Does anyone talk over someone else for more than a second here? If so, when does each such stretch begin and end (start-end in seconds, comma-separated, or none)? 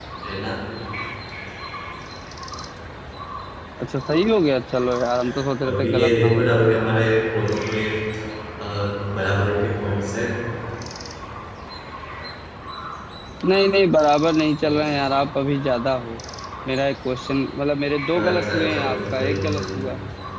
5.7-7.0, 18.1-19.6